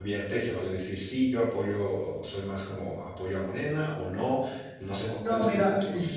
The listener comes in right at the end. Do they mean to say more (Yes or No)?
Yes